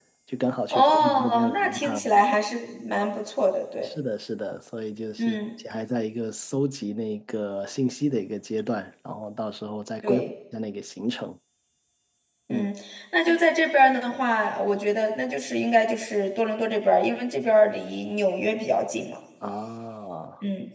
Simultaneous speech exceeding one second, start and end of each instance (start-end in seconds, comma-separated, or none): 0.7-2.1